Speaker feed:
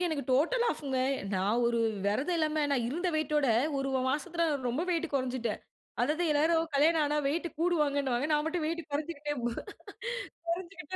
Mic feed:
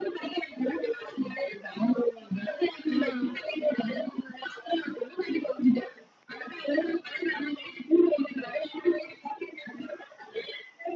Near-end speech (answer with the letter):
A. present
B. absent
A